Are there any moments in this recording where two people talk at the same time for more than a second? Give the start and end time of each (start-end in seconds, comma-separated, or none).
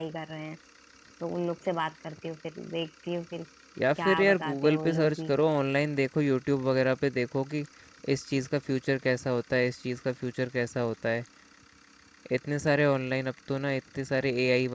4.0-5.3